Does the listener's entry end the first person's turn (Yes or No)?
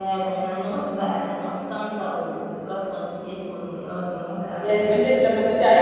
Yes